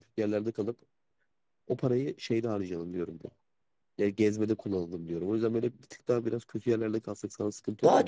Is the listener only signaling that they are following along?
No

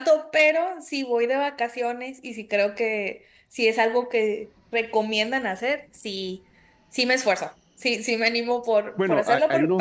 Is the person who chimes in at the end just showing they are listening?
No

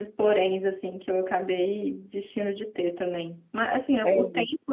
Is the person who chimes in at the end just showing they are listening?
Yes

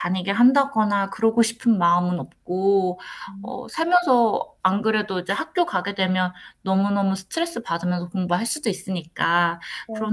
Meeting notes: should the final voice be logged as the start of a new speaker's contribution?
No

